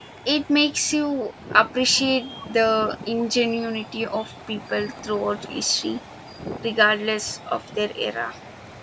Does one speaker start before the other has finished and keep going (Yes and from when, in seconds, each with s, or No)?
No